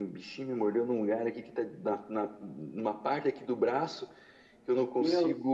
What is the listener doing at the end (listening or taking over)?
listening